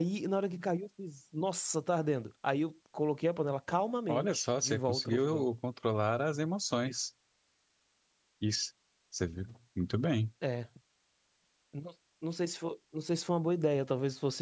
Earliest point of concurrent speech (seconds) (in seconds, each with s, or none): 4.1 s